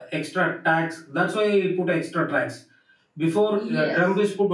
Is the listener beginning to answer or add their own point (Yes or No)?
No